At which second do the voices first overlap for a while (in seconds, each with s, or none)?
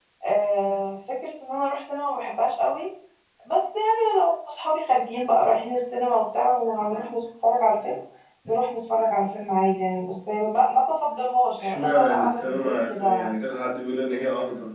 11.6 s